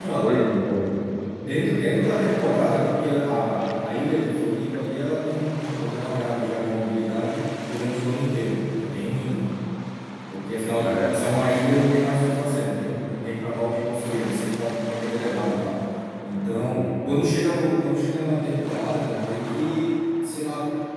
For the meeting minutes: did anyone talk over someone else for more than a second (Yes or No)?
No